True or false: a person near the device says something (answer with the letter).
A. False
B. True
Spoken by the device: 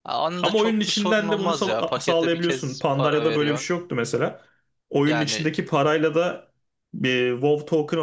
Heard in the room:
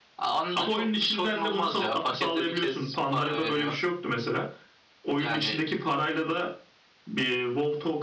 A